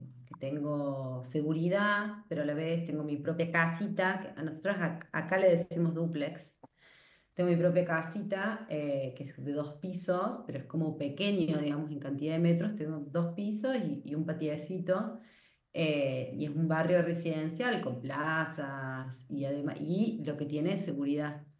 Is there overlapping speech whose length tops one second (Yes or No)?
No